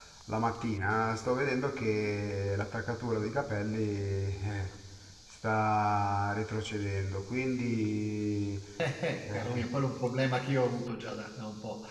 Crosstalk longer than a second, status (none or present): none